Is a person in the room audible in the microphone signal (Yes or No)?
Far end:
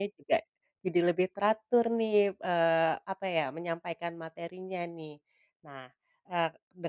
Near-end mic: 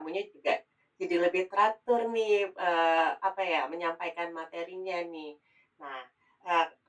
No